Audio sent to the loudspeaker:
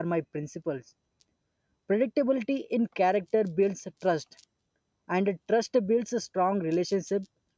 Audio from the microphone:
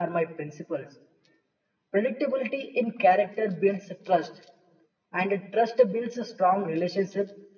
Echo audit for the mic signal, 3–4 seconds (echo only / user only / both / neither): echo only